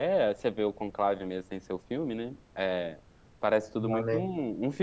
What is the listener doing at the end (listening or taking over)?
listening